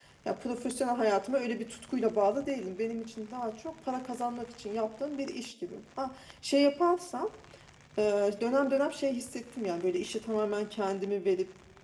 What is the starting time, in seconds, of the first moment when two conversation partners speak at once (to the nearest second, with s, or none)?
none